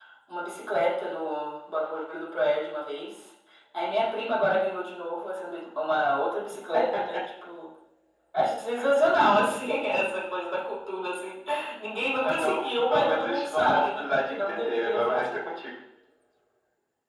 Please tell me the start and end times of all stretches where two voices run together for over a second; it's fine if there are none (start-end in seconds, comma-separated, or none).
12.2-15.4